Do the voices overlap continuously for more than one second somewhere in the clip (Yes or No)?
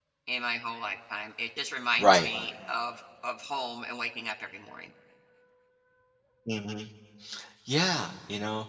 No